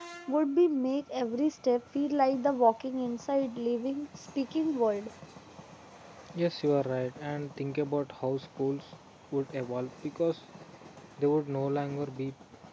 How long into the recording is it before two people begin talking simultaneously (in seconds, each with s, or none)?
none